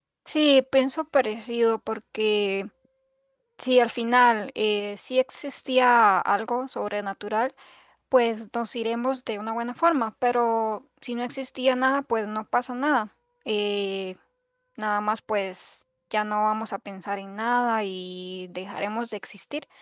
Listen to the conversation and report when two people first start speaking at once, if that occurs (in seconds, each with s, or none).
none